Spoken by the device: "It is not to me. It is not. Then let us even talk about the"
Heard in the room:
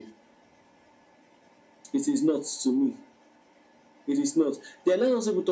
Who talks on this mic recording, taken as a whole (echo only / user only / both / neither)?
echo only